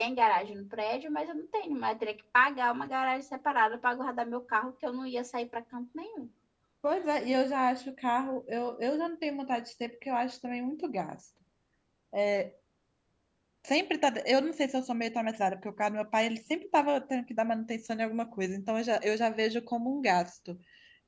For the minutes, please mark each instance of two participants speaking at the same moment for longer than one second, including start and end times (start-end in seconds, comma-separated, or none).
none